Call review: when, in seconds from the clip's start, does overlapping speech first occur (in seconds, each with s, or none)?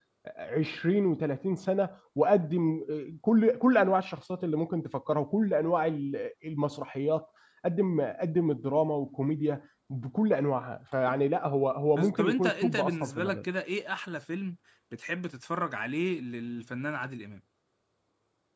11.9 s